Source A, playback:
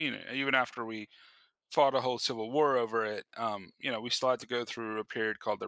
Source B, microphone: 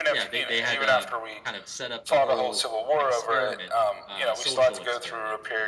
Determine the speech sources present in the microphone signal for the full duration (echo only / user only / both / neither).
both